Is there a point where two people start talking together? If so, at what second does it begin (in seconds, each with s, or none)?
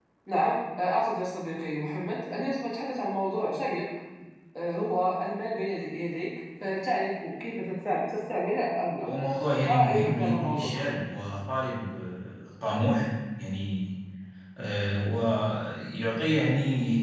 9.6 s